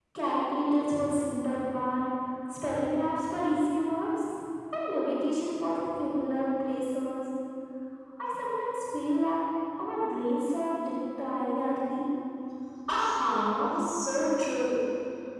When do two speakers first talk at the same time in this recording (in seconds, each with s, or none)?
none